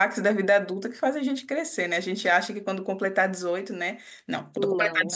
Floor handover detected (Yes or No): No